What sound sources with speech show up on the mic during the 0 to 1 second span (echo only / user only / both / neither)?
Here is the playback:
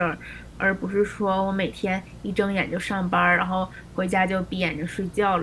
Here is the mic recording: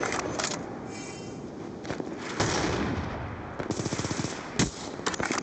neither